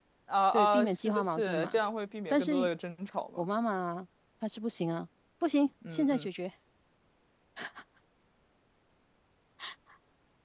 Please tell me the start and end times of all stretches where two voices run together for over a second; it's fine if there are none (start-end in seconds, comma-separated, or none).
0.5-1.8